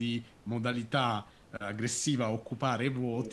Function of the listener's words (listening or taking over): listening